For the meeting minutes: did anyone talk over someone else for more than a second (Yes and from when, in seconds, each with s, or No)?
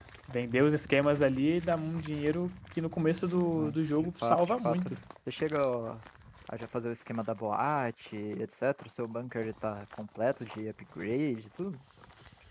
Yes, from 3.6 s